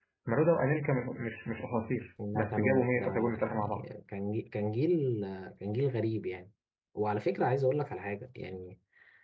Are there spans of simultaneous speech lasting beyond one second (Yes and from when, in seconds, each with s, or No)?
Yes, from 2.2 s